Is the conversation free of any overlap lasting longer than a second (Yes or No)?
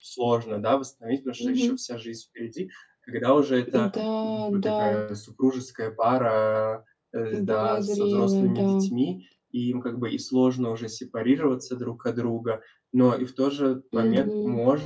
No